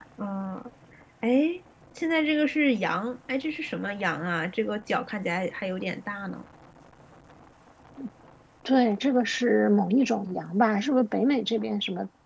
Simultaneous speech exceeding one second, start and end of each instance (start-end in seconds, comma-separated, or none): none